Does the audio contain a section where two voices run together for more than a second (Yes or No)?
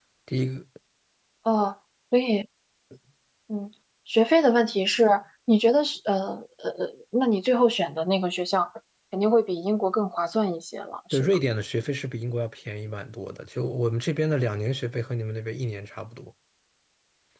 No